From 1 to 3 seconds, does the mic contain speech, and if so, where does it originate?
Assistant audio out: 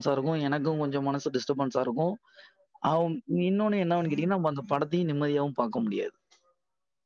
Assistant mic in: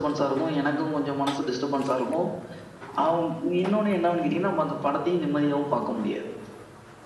echo only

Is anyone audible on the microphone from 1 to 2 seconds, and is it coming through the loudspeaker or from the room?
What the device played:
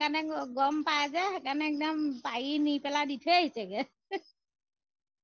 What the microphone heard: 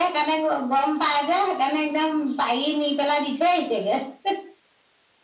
echo only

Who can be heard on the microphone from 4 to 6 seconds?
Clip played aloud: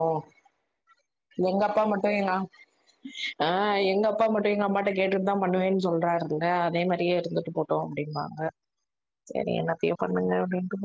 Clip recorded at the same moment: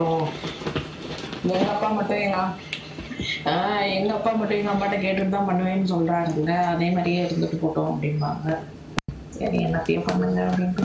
echo only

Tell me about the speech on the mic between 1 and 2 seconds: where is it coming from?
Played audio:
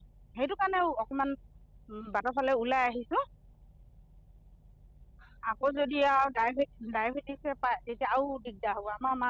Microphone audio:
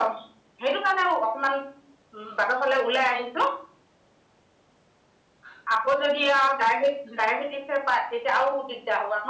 echo only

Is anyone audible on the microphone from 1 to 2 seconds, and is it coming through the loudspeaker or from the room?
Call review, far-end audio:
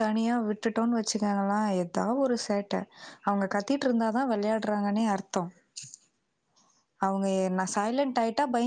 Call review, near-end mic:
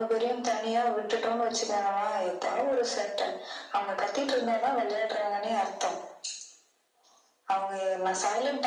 echo only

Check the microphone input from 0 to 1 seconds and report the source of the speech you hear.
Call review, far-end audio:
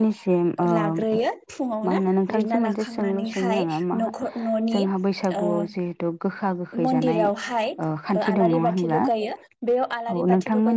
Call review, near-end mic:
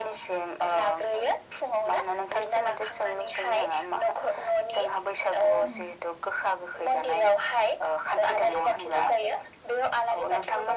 echo only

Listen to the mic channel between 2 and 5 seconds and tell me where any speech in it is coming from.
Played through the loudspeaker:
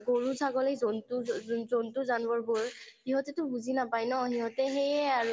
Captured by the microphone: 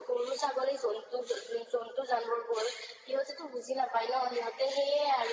echo only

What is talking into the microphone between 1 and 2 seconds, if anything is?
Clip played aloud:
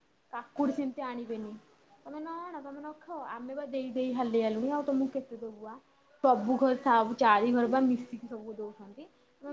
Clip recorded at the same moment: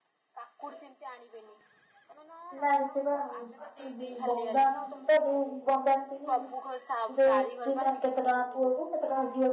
echo only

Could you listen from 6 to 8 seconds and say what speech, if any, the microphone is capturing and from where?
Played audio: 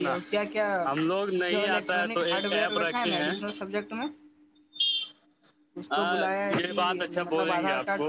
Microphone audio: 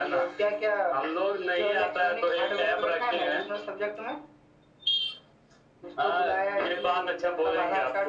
echo only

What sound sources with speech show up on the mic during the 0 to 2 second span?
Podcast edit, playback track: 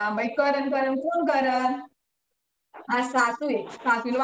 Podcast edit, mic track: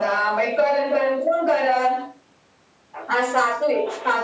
echo only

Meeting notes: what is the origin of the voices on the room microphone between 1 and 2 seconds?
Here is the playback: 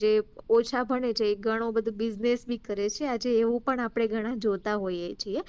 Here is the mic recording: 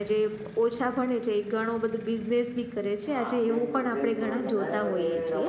echo only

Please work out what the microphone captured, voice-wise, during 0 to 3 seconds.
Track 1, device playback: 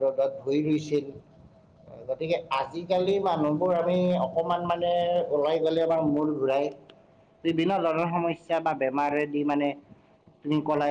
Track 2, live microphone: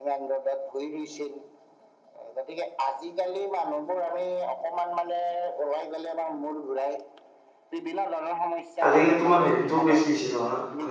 echo only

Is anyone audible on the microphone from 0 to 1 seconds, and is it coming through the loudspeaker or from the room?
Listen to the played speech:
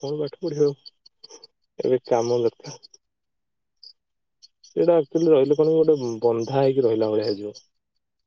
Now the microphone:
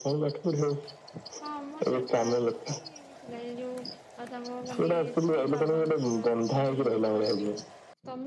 echo only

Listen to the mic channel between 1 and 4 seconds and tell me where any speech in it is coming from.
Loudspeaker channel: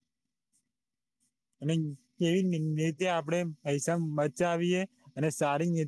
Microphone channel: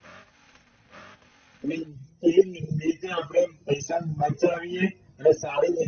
echo only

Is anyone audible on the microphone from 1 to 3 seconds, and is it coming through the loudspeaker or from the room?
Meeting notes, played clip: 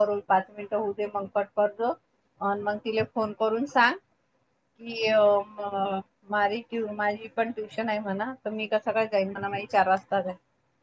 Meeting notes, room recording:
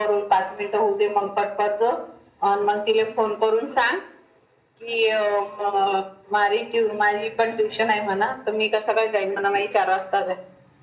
echo only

